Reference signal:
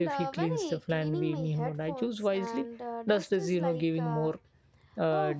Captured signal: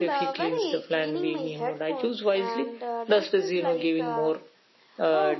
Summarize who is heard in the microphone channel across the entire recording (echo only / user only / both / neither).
echo only